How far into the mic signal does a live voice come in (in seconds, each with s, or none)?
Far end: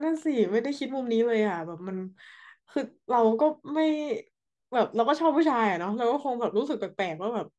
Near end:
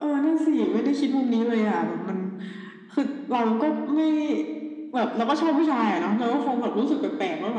none